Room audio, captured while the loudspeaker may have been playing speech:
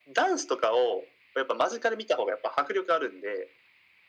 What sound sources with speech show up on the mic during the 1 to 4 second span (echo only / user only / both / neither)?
echo only